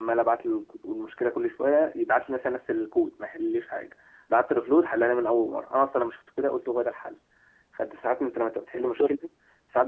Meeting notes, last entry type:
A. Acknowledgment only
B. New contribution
A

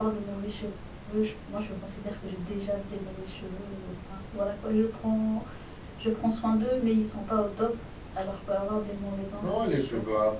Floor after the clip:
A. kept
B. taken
B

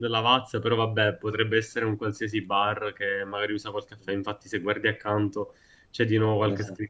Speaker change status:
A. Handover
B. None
B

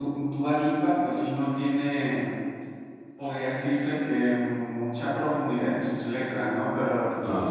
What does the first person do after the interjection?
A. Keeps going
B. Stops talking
A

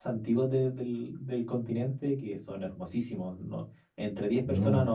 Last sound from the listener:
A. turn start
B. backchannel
B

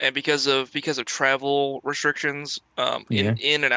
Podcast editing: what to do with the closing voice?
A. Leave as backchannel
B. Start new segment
A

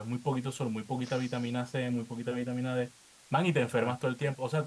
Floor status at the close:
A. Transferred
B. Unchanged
B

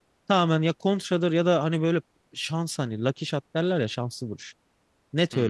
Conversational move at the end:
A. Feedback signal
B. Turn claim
A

